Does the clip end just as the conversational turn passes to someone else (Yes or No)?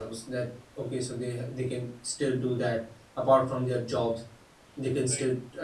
No